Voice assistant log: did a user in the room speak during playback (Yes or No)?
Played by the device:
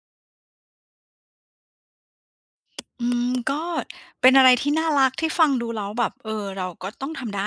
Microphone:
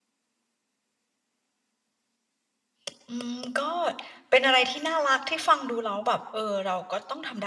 No